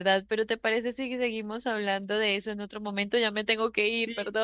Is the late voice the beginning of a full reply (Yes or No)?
Yes